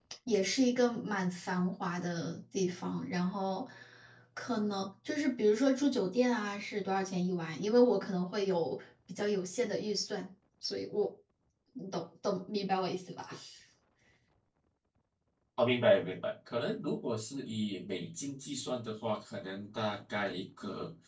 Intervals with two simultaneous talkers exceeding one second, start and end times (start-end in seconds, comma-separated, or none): none